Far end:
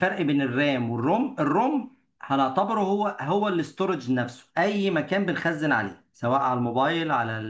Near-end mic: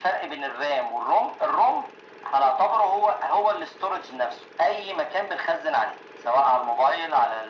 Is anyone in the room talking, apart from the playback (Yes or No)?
No